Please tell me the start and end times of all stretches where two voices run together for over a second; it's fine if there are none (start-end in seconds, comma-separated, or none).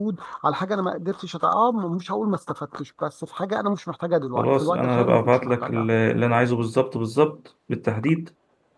4.3-5.9